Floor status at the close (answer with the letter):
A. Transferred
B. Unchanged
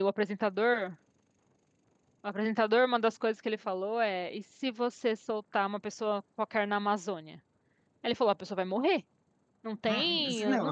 A